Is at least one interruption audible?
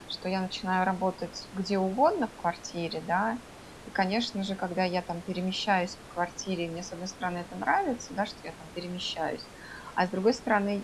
No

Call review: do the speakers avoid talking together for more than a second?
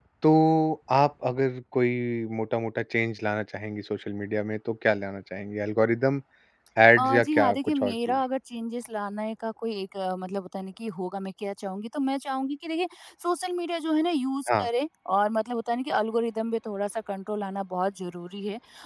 No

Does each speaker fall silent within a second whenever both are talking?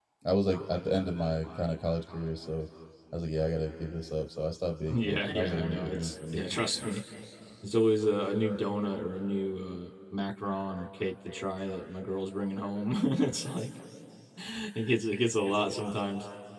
No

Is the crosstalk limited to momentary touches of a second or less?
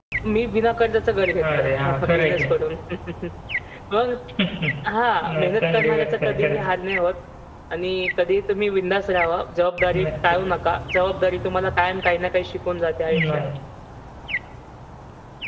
No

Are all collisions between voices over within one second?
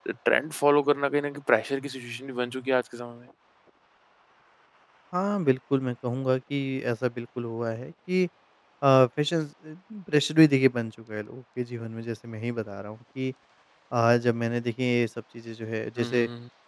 Yes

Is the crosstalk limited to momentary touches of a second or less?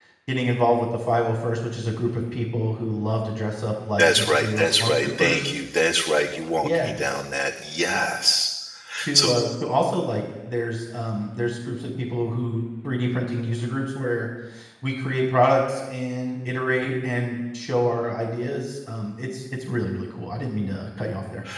No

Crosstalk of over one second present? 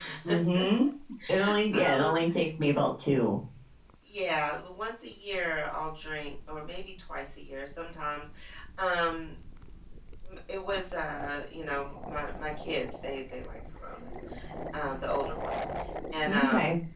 No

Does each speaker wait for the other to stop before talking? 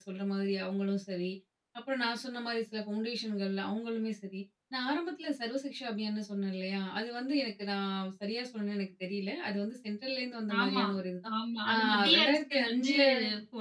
No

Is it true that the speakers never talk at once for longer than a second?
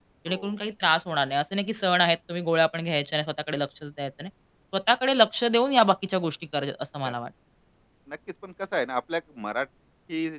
Yes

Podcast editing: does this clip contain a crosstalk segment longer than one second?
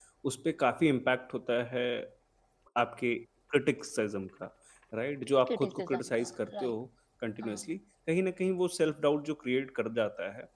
Yes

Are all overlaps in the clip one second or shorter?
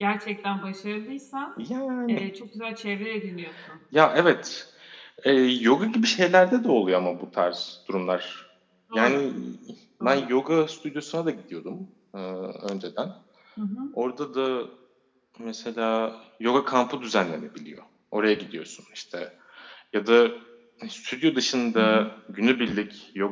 Yes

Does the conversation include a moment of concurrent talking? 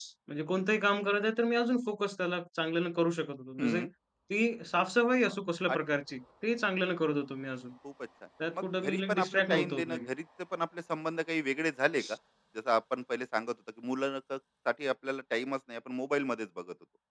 Yes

